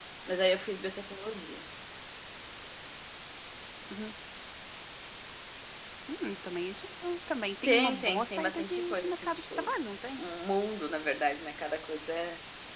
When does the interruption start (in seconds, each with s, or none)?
7.7 s